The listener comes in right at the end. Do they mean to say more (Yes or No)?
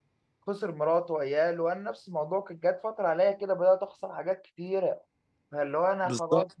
No